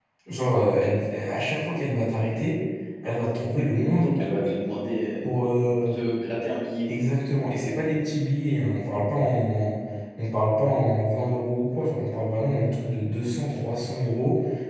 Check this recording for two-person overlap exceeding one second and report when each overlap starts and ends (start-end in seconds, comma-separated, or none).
none